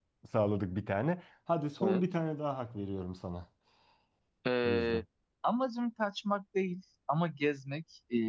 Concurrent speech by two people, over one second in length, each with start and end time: none

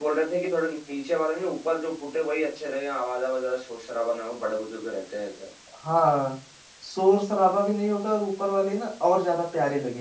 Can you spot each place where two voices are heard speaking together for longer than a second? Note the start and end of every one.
none

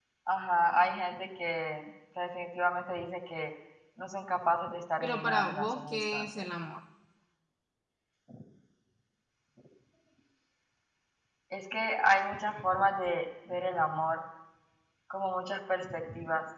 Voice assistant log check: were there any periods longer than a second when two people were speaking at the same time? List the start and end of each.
5.0-6.5

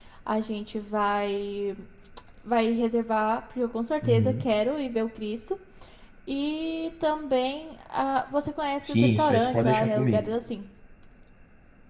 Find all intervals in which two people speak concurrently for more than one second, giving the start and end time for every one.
8.8-10.2

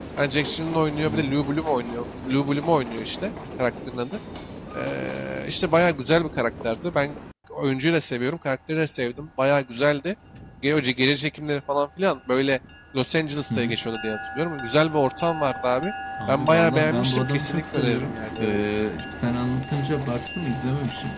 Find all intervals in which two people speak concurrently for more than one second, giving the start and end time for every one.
16.3-18.7

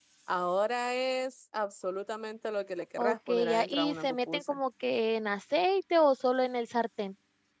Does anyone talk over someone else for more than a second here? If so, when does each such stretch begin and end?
3.0-4.6

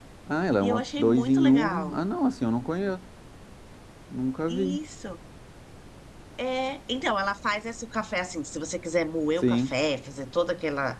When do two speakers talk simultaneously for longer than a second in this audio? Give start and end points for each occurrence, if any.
0.6-2.0

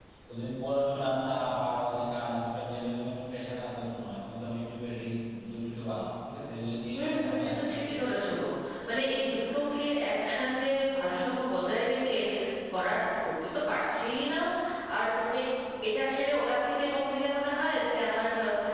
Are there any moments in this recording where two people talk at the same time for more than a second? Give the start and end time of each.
6.9-8.2

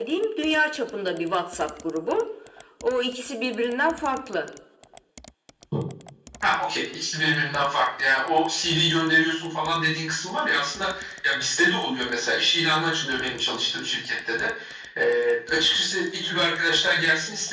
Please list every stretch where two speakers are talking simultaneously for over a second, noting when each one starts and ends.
none

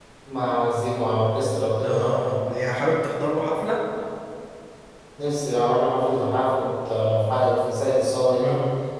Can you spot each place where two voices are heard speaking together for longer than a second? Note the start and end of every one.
none

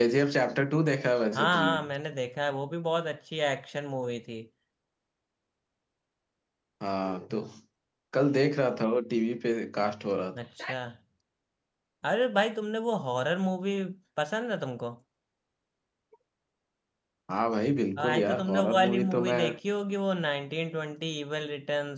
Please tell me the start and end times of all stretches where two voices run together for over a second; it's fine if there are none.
18.0-19.4

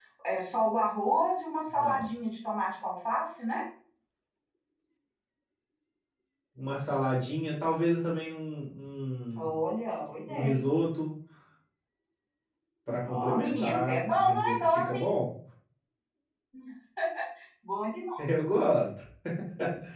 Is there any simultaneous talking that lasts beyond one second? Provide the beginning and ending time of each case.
13.0-15.1

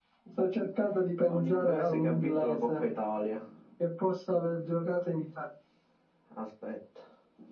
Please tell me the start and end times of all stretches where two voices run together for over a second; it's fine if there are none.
1.3-2.8

